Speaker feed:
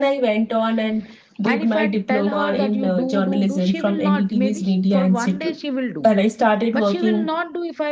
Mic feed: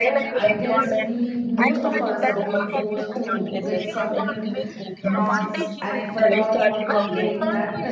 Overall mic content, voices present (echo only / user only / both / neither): both